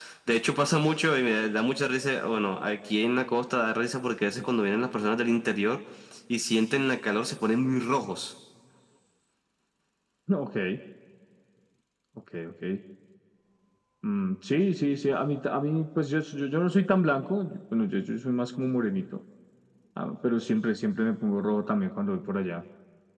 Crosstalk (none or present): none